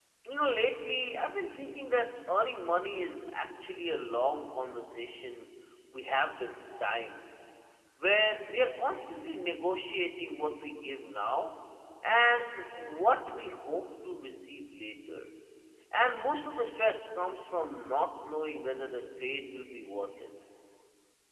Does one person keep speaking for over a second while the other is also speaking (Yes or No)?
No